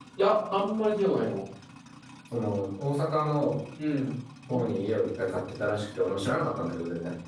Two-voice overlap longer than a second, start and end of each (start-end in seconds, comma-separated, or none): none